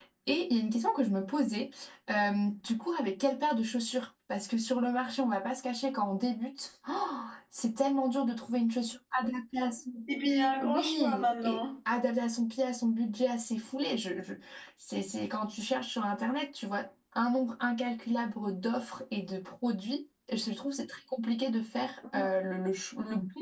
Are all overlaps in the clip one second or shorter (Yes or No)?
No